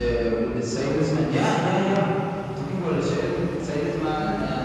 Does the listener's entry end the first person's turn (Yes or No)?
No